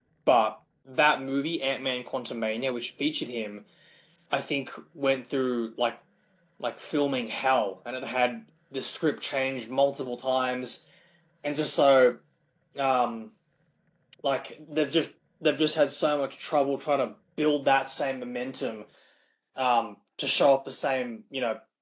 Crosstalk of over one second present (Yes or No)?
No